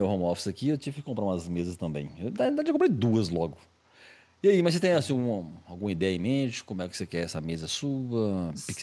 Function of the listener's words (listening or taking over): listening